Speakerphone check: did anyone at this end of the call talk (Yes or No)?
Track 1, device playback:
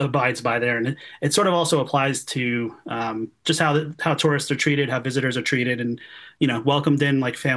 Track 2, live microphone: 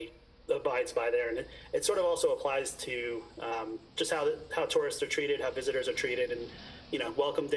No